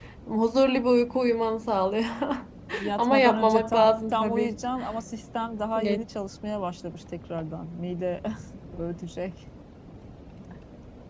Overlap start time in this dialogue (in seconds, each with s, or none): 3.0 s